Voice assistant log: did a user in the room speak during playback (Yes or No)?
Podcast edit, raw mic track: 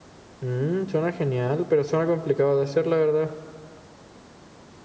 Yes